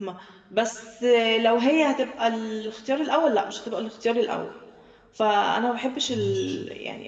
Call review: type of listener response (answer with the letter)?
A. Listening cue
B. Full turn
A